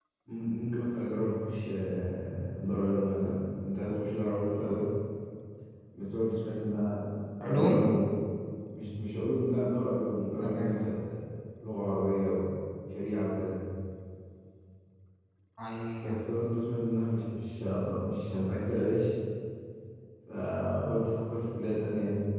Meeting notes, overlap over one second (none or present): none